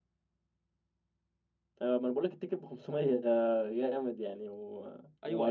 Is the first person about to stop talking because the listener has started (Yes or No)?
Yes